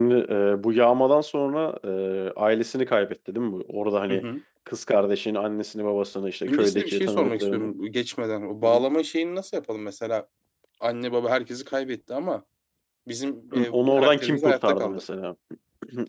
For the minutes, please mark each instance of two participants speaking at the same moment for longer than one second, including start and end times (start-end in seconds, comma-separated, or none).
6.5-7.7, 13.5-15.0